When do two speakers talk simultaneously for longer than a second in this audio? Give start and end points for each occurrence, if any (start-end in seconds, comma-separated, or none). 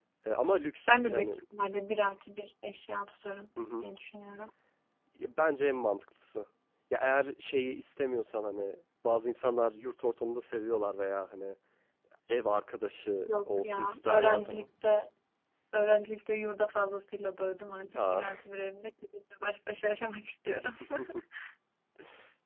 13.3-14.7